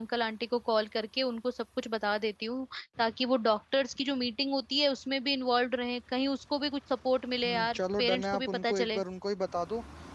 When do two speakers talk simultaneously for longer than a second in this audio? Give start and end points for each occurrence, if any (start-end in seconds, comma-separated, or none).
7.4-9.0